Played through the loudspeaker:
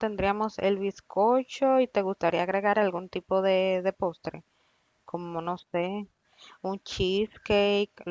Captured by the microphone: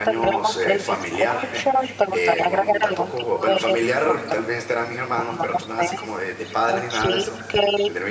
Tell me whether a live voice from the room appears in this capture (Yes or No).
Yes